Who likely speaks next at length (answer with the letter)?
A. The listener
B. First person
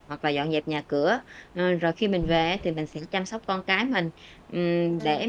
B